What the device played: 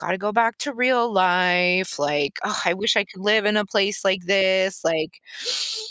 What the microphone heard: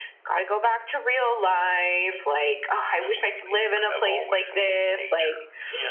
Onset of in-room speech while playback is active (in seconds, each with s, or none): 3.0 s